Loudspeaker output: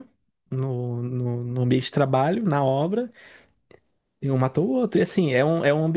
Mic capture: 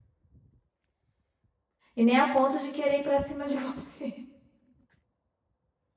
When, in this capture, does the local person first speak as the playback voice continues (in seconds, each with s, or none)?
1.9 s